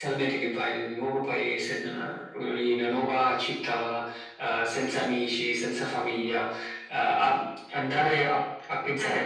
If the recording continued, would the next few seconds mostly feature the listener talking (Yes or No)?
No